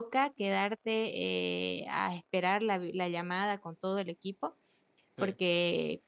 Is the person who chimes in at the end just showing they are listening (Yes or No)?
Yes